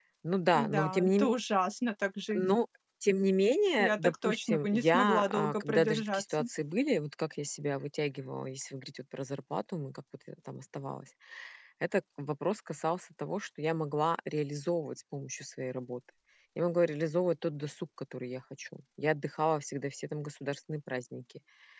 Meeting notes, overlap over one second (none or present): present